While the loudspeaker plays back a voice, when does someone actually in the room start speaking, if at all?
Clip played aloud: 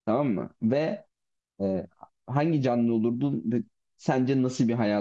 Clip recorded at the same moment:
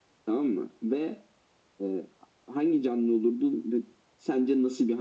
none

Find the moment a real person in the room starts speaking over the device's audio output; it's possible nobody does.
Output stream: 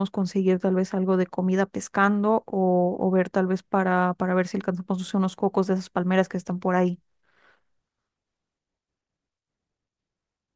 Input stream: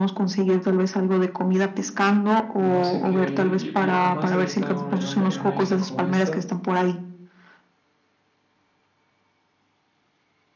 2.6 s

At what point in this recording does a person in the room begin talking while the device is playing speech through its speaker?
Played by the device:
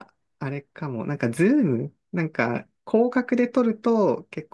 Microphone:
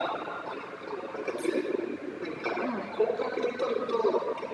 2.6 s

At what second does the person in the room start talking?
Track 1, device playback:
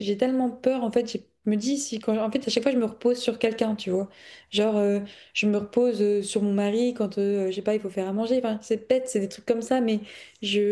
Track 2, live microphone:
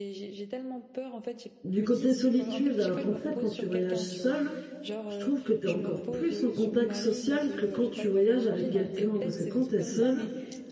1.6 s

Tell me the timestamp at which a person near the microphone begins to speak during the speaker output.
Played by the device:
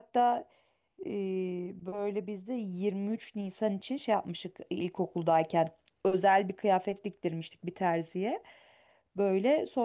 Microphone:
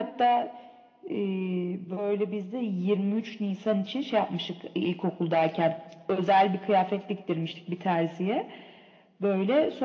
none

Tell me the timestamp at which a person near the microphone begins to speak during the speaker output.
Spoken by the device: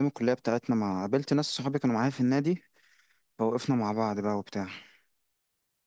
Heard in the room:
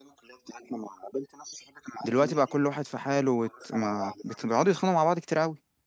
2.0 s

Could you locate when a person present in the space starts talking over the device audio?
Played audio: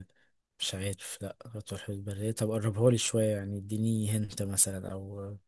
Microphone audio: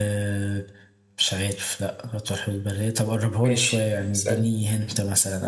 3.4 s

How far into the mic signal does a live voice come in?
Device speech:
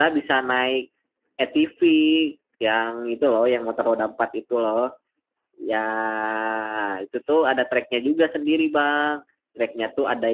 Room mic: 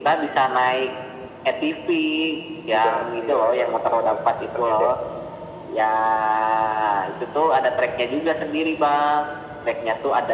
2.7 s

